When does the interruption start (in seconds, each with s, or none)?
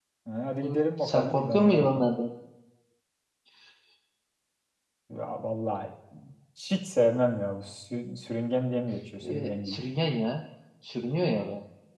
0.6 s